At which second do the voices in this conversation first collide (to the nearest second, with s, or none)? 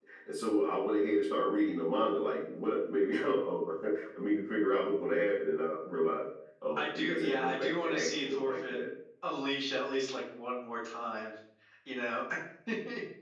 7 s